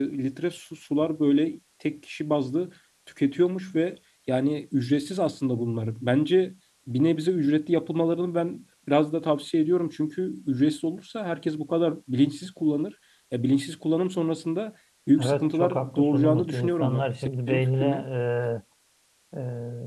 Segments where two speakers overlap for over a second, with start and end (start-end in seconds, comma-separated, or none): 15.2-17.1